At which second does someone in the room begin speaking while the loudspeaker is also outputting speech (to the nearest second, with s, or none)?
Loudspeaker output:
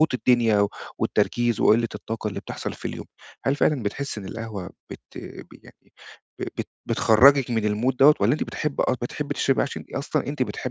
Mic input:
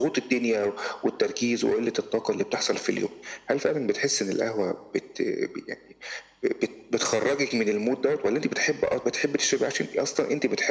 none